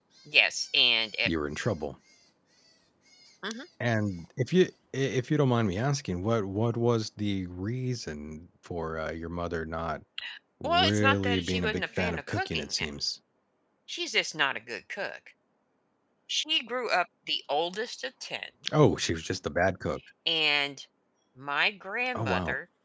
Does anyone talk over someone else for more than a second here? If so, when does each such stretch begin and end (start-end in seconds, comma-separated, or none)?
10.6-12.6